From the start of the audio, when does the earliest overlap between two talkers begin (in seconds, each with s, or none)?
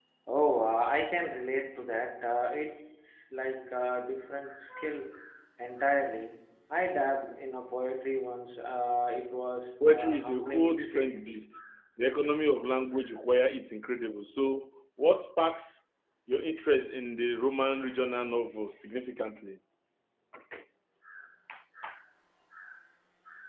9.8 s